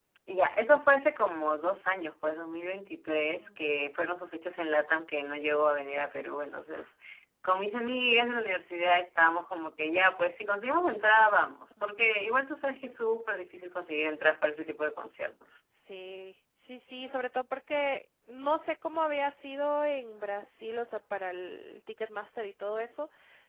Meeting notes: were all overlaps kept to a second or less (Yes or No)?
Yes